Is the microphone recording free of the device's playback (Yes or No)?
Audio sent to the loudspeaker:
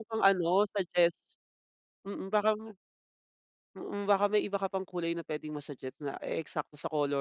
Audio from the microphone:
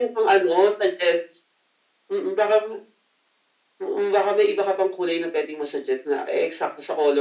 No